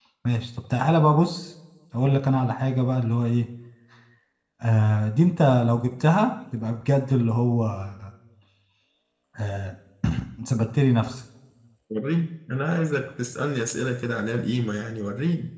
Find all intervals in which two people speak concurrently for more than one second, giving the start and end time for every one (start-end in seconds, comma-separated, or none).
none